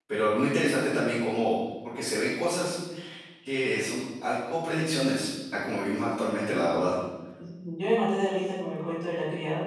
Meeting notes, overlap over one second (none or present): none